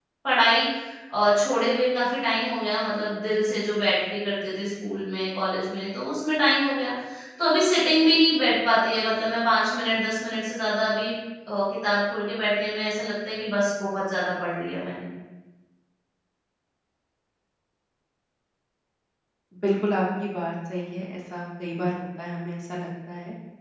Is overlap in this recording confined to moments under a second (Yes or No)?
Yes